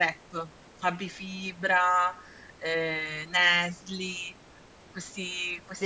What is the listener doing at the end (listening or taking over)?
taking over